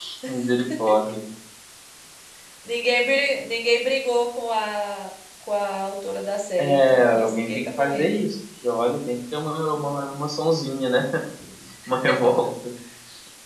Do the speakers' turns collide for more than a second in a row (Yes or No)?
Yes